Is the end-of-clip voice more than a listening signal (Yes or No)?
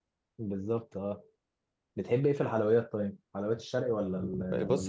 Yes